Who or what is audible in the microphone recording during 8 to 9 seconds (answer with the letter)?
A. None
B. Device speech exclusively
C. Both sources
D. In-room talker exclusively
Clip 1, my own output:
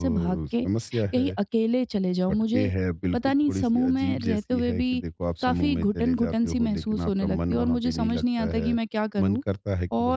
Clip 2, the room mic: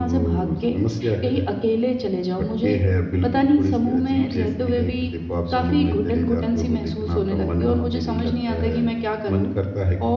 B